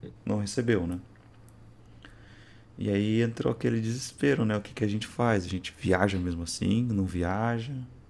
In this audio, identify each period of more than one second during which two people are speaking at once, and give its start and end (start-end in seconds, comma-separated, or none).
none